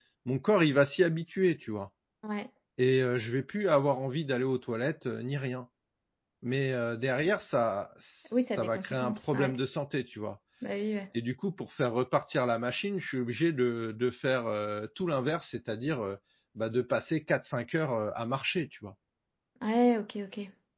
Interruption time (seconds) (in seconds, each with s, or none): 8.3 s